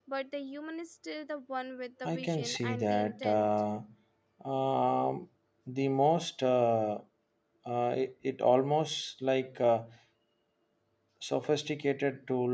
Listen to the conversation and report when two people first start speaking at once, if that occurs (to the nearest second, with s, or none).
2 s